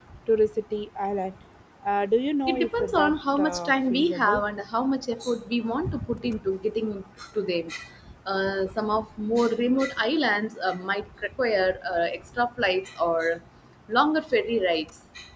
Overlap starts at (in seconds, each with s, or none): 2.5 s